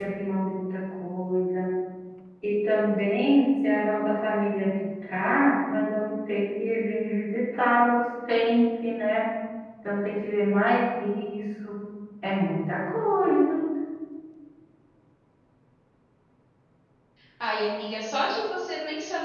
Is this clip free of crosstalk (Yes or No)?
Yes